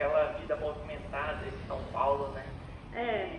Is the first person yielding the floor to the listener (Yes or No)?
No